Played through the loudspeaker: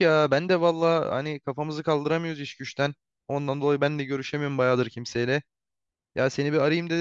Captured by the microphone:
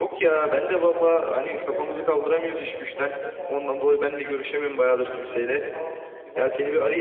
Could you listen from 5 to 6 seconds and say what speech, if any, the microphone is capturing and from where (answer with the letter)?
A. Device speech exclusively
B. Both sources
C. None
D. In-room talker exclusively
B